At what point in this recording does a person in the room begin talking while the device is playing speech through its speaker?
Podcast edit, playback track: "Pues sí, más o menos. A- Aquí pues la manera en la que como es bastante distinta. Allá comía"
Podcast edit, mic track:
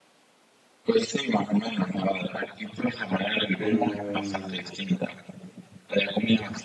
3.5 s

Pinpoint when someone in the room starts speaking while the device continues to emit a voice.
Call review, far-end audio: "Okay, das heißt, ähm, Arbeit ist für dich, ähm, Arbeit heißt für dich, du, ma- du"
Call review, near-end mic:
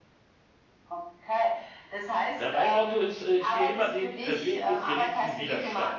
2.4 s

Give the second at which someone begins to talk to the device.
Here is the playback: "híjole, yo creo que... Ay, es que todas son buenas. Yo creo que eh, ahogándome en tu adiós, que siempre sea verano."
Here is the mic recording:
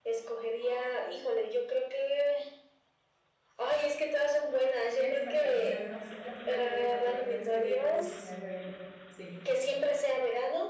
5.0 s

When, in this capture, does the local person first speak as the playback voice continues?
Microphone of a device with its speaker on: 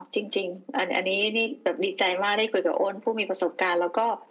none

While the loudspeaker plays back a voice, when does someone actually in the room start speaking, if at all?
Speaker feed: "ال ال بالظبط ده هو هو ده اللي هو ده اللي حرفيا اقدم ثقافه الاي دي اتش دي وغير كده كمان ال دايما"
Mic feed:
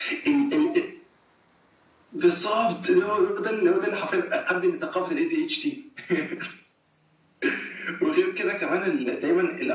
none

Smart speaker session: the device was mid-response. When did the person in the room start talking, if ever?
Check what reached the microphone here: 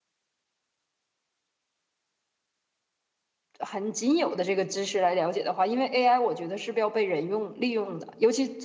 3.6 s

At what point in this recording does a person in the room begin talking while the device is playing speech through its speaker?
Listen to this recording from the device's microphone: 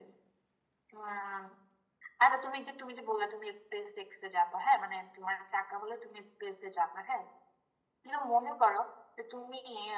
none

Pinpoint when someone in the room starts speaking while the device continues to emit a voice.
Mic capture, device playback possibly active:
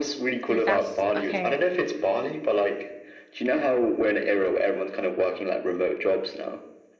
0.4 s

